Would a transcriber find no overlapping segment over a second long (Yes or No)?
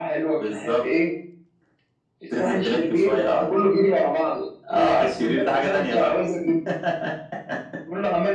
No